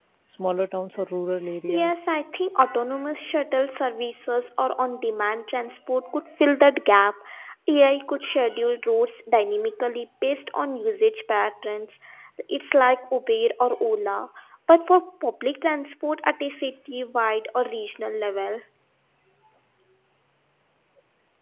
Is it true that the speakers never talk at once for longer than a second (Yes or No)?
Yes